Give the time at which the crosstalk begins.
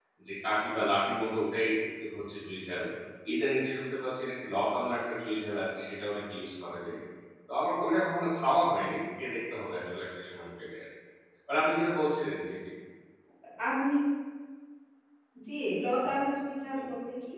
none

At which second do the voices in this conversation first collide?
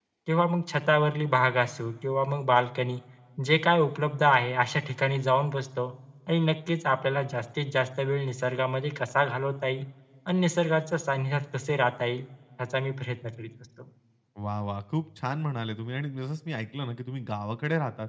none

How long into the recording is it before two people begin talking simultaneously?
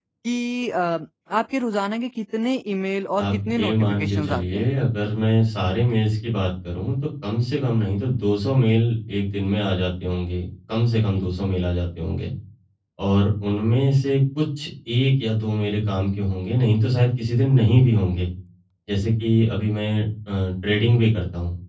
3.2 s

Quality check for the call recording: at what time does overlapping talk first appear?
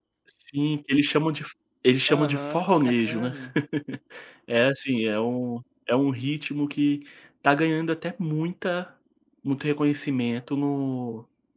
2.1 s

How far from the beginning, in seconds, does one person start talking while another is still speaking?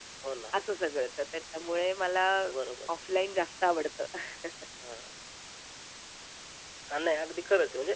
none

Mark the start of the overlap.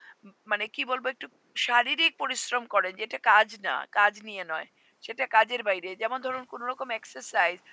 none

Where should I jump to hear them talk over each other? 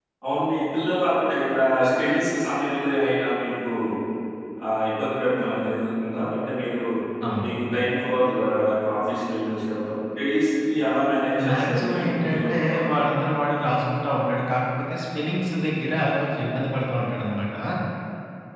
11.2 s

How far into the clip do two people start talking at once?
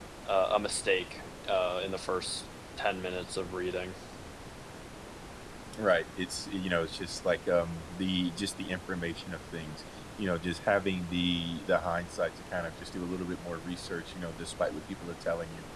none

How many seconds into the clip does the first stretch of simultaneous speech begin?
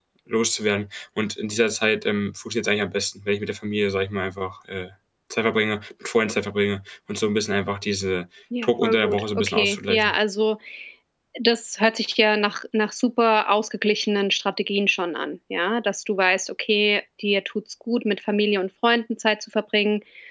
8.5 s

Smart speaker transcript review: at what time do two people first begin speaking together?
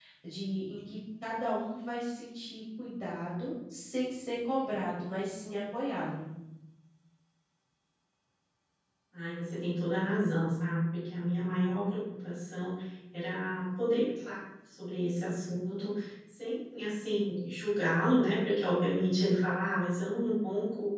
none

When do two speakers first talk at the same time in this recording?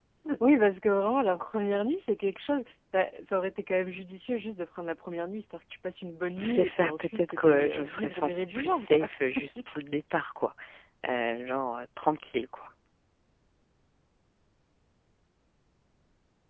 6.4 s

